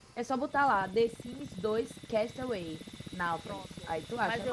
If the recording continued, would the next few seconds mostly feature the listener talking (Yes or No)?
Yes